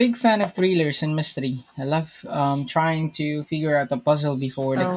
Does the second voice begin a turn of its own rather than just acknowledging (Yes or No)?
Yes